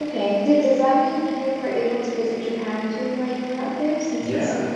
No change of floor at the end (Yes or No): No